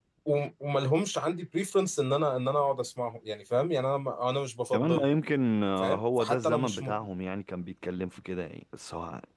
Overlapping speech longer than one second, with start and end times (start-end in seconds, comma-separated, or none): 5.8-7.0